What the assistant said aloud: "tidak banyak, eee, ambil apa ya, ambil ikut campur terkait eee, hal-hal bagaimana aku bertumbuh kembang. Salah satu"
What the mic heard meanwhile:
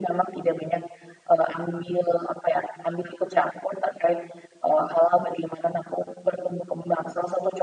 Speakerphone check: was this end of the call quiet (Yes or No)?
Yes